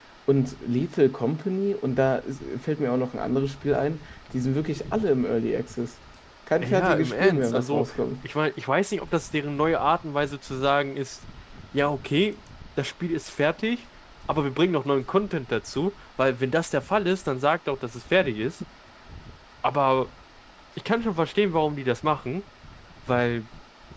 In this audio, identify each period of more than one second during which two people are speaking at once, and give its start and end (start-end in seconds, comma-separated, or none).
6.6-8.0